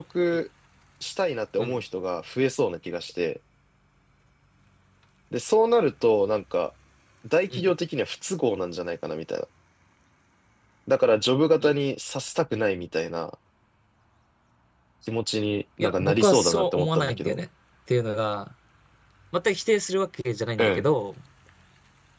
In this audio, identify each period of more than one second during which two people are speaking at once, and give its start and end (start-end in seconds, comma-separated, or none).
15.8-17.4